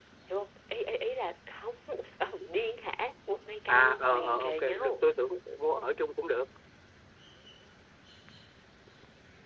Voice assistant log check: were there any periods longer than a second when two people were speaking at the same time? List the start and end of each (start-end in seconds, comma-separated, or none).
3.7-4.9